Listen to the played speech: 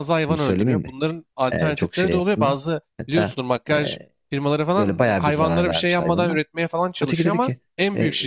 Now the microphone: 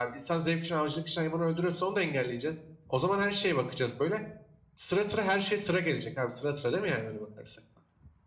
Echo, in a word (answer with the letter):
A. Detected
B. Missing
B